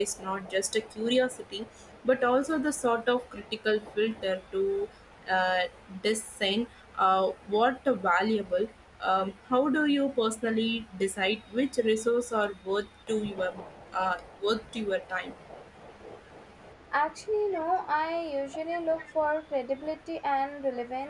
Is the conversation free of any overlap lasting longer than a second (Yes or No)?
Yes